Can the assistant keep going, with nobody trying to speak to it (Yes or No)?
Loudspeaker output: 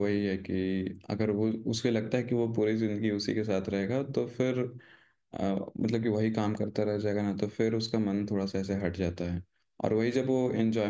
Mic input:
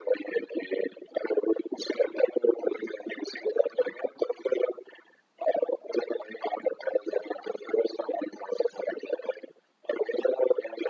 Yes